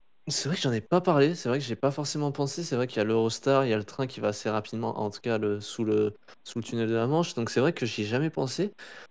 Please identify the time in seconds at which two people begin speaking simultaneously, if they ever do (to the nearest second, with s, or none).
none